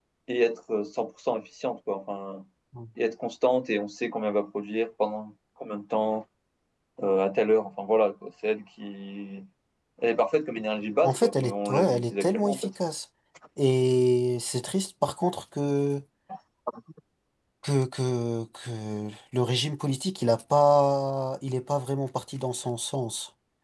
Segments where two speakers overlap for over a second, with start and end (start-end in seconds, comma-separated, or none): 11.0-12.7